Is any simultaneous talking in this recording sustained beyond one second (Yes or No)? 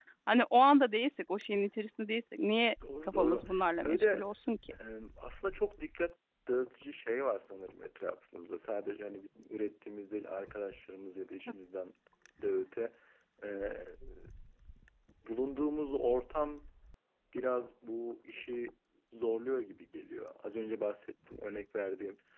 Yes